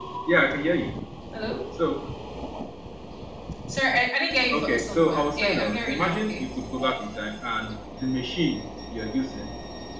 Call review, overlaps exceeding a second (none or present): present